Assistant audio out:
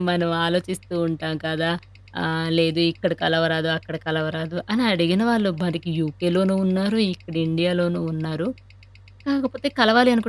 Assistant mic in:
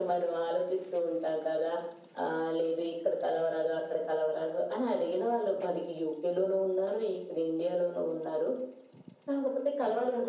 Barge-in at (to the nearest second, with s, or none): none